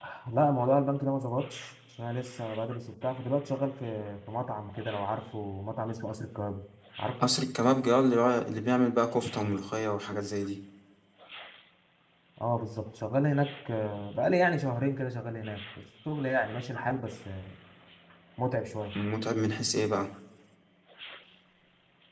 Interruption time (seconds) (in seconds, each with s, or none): none